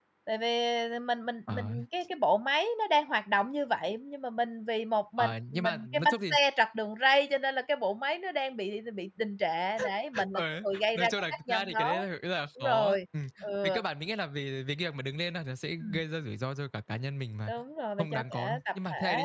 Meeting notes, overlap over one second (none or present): present